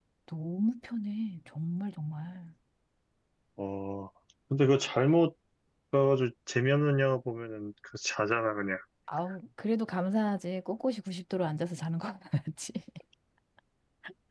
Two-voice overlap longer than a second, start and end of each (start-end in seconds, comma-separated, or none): none